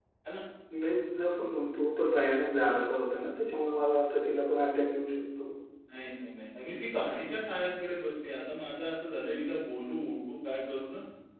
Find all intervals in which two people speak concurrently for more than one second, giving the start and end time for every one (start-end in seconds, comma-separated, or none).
none